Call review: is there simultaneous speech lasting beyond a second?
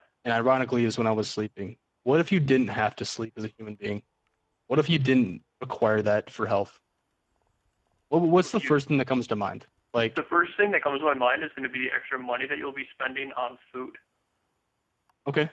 No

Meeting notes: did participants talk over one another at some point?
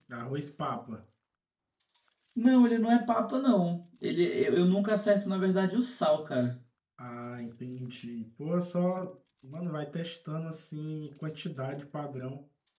No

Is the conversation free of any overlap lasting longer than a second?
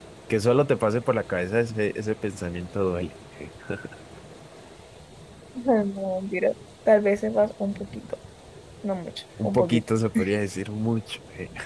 Yes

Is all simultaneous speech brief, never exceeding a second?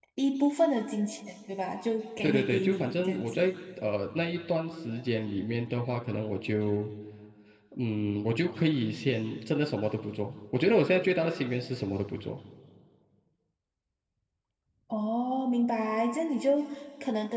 No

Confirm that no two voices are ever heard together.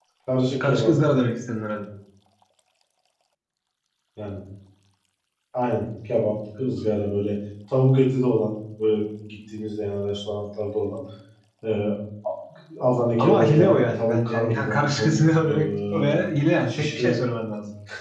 No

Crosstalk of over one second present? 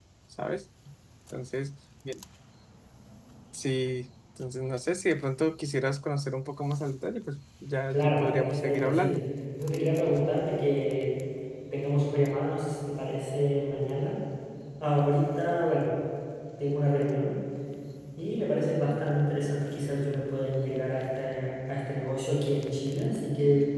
Yes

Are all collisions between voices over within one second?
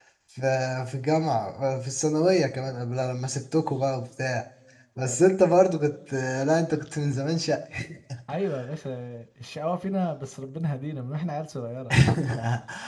Yes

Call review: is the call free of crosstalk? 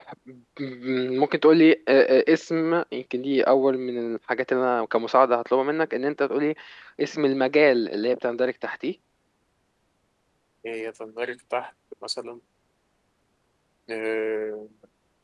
Yes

